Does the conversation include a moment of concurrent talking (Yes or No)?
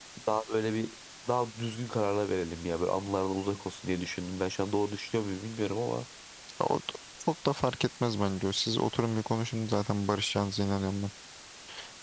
No